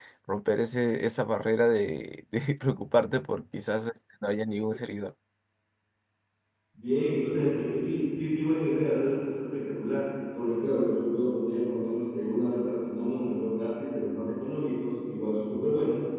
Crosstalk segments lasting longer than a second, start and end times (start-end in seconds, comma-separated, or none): none